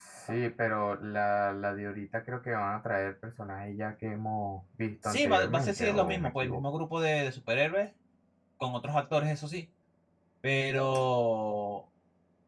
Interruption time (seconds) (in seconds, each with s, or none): 5.0 s